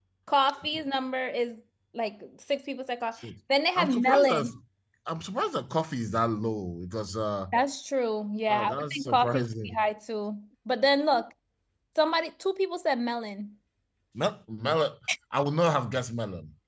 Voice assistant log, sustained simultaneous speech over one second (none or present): present